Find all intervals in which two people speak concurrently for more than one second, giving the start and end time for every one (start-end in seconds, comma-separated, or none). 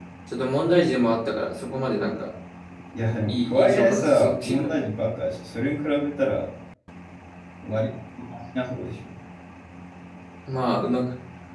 3.3-4.8